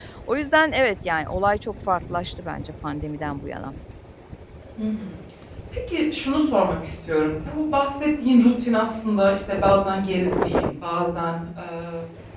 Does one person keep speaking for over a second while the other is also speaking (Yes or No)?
No